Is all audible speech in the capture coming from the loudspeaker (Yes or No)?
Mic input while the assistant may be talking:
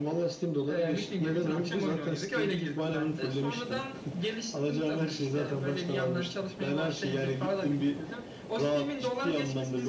Yes